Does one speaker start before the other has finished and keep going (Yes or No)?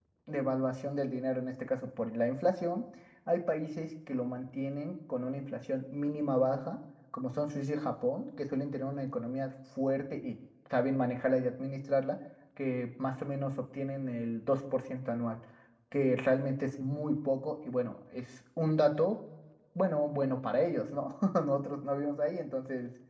No